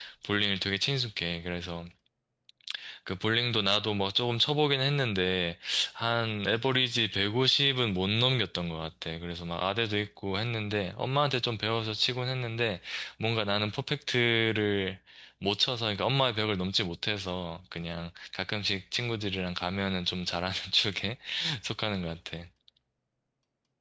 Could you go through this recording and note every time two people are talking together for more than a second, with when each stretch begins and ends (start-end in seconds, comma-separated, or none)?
none